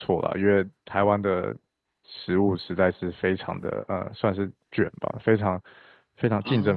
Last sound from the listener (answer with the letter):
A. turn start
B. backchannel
B